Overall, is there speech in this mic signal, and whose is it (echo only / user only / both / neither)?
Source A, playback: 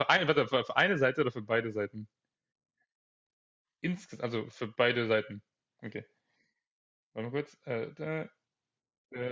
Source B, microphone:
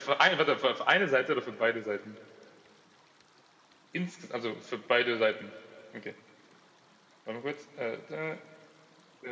echo only